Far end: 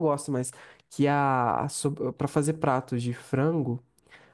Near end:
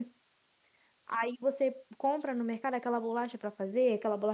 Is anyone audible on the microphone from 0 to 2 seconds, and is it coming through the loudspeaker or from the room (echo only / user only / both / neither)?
user only